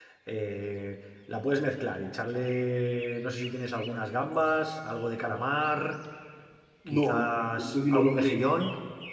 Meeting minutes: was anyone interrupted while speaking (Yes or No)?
Yes